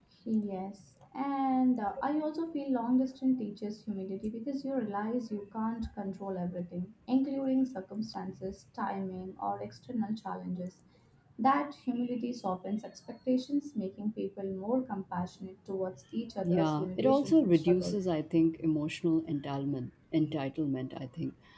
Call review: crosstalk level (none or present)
present